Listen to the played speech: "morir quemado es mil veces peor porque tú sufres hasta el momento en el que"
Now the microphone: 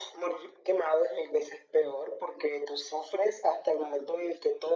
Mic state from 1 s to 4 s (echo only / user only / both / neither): echo only